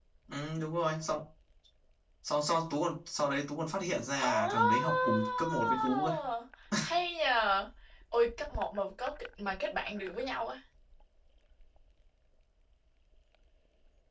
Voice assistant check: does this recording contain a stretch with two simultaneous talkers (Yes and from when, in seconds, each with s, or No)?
Yes, from 4.1 s